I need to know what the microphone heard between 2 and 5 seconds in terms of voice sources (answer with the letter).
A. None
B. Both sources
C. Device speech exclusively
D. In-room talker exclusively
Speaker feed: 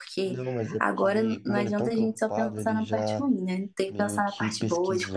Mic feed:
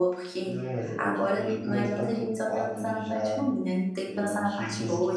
C